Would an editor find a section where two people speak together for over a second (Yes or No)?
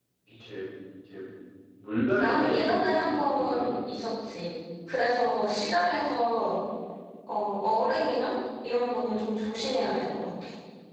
Yes